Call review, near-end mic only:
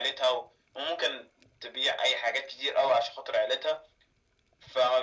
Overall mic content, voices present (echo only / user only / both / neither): echo only